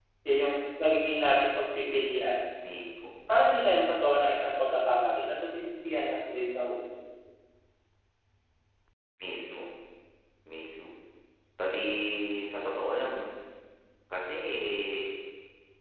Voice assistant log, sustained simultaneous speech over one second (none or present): none